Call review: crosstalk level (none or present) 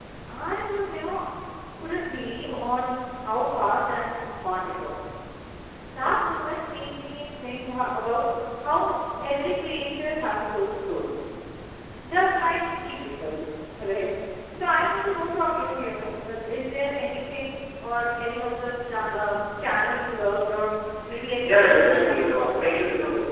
present